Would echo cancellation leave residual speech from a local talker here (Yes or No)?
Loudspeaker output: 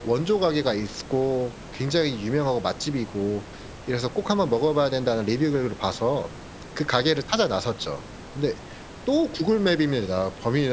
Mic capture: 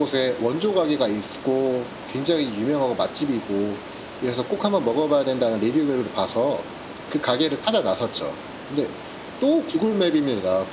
No